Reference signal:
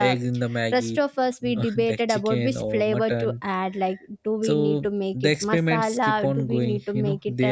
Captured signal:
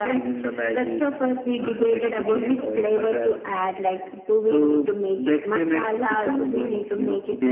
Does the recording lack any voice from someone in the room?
Yes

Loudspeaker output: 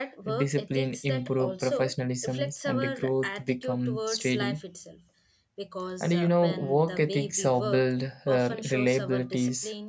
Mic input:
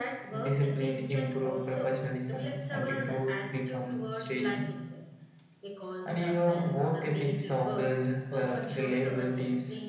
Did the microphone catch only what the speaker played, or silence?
Yes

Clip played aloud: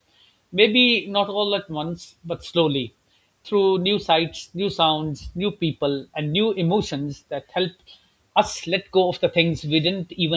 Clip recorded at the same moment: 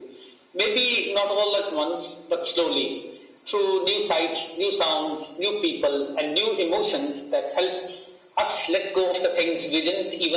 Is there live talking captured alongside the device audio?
No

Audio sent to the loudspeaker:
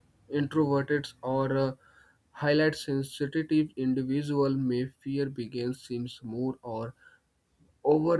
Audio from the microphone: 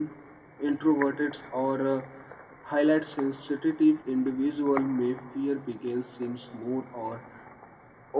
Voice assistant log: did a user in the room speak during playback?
No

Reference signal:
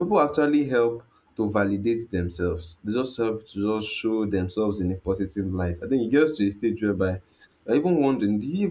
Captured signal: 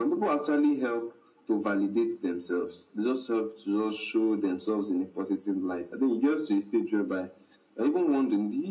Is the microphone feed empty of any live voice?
Yes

